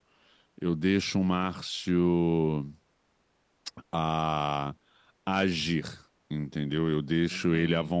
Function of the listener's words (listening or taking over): listening